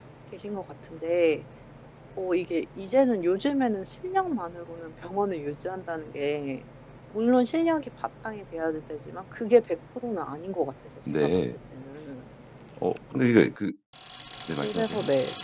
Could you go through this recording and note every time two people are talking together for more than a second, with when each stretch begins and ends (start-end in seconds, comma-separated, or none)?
none